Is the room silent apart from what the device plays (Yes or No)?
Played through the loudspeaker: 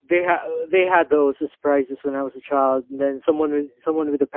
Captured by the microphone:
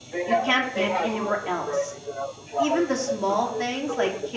No